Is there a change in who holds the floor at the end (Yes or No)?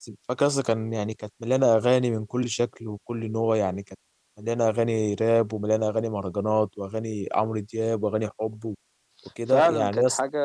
Yes